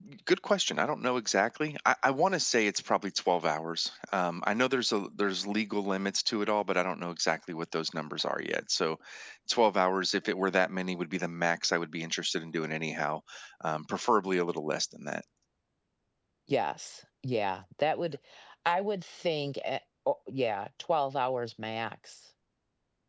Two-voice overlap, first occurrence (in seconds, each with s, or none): none